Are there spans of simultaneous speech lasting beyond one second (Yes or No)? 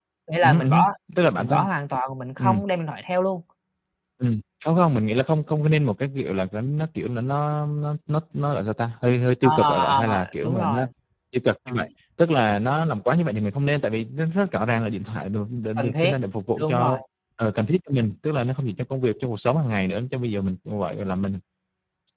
Yes